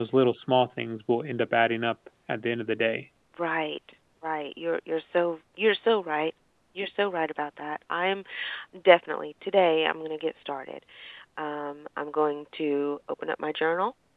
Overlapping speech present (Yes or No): No